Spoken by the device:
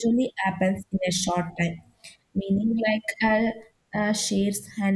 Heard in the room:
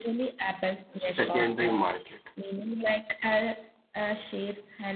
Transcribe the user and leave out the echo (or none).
secondary market.